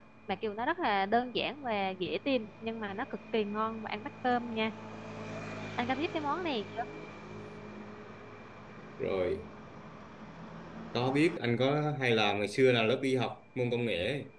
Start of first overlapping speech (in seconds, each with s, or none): none